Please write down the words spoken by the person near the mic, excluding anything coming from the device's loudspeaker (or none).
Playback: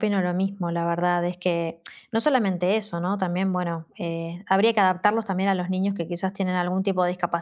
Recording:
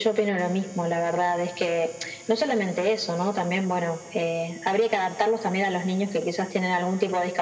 none